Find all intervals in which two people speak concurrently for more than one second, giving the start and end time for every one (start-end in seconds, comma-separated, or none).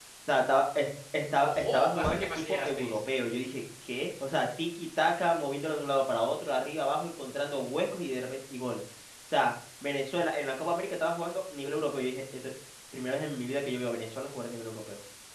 1.4-3.0